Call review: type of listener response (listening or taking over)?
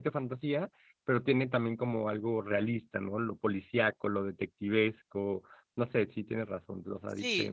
taking over